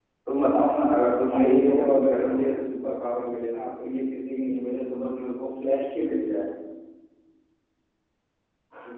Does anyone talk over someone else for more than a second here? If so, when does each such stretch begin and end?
1.3-2.5

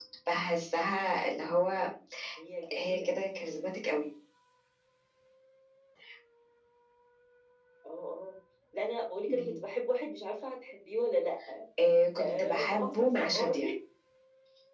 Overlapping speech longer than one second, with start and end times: 12.2-13.6

